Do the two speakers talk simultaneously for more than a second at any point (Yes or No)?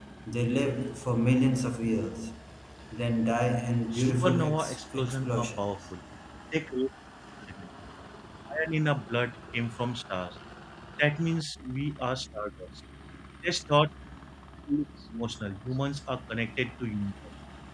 Yes